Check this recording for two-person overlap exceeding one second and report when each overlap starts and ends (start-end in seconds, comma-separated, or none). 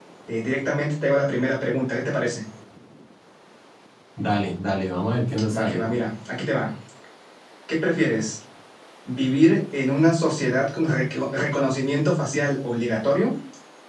none